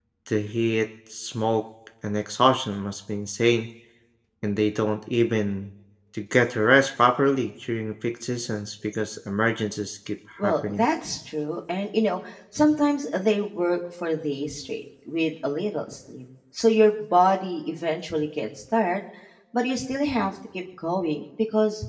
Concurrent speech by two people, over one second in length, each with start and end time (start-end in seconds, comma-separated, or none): none